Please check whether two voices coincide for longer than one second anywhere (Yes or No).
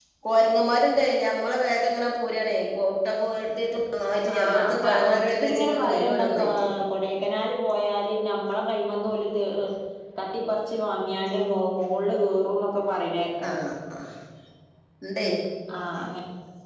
Yes